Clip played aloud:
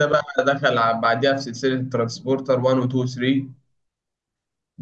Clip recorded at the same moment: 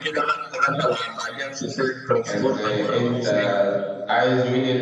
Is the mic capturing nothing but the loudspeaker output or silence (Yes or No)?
No